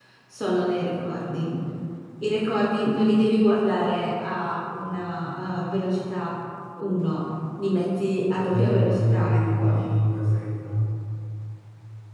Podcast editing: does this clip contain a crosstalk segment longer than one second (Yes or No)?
Yes